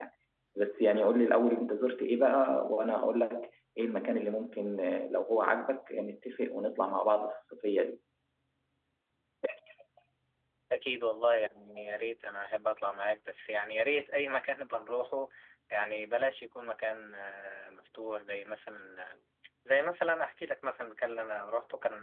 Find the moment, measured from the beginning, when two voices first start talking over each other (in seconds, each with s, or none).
none